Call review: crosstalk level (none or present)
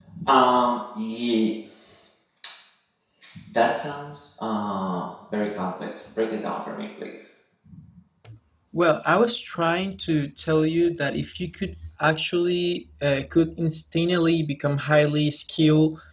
none